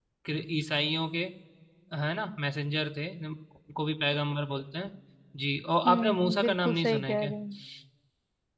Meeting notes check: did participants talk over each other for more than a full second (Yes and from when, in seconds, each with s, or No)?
Yes, from 5.9 s